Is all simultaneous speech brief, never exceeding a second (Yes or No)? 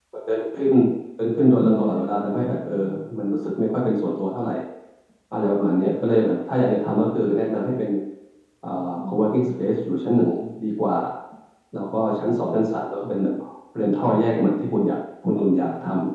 No